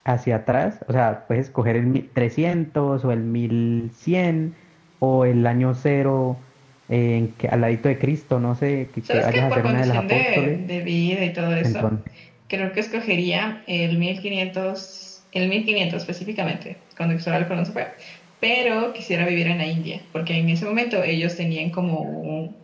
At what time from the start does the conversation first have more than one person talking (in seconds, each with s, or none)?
9.0 s